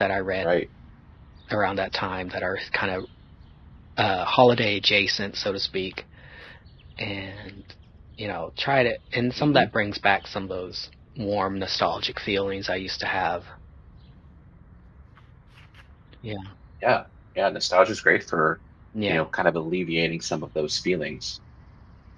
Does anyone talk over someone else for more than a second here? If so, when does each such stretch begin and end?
none

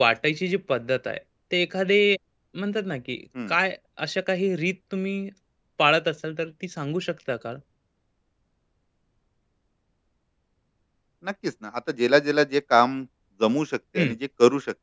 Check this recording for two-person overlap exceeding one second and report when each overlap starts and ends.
none

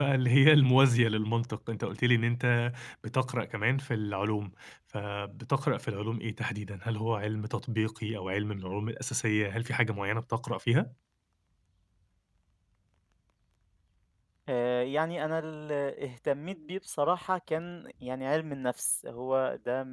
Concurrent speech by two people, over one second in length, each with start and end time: none

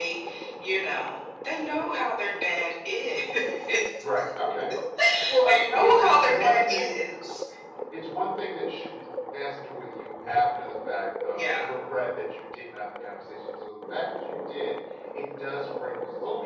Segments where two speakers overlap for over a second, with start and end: 5.5-7.0

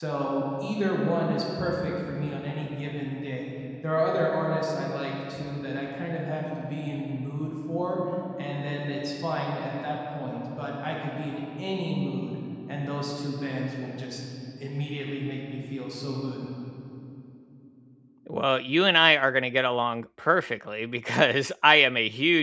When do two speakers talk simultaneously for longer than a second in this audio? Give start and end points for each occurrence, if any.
none

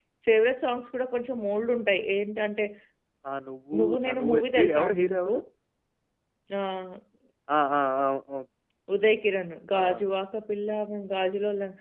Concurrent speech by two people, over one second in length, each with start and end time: 3.8-5.3

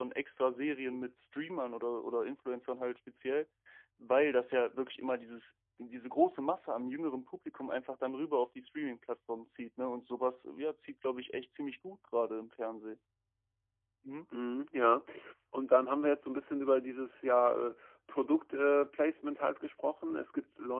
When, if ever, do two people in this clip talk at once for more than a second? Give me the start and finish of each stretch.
none

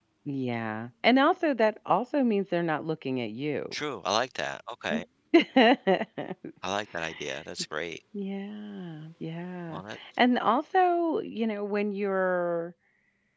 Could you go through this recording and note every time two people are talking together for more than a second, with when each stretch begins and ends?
none

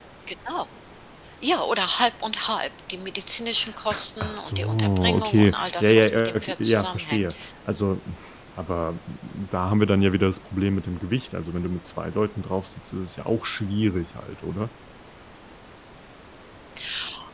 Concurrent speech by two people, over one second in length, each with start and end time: 4.2-7.3

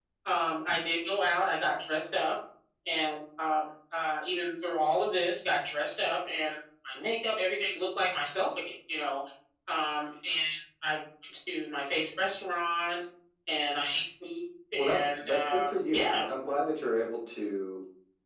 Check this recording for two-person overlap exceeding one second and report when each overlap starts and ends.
14.8-16.2

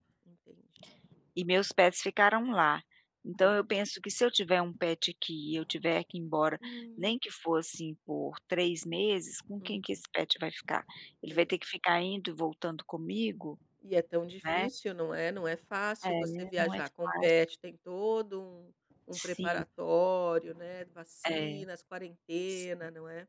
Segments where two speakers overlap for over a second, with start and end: 16.0-17.3

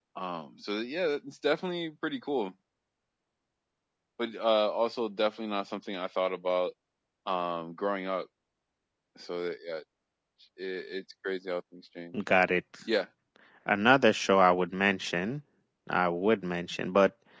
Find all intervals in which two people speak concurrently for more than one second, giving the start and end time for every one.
none

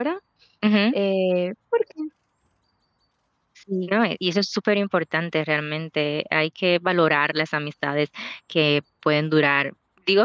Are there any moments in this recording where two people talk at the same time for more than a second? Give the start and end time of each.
none

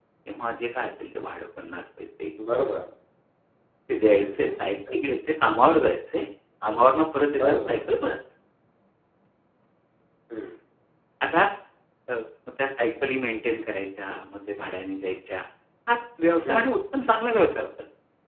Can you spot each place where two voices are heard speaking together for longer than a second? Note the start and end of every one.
none

